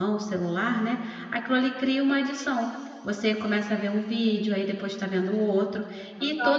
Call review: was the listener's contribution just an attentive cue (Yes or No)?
Yes